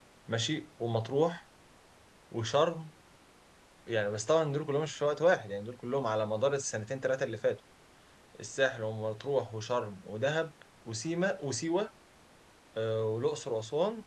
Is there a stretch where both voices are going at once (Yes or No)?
No